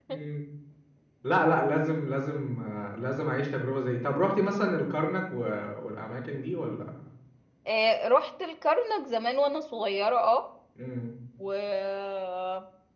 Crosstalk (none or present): none